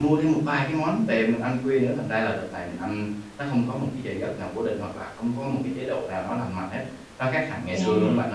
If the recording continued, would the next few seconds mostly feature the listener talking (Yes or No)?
Yes